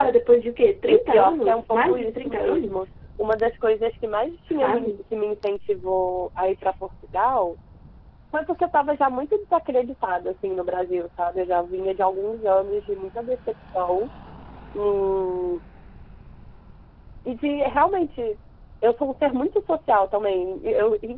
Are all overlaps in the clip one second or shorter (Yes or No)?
No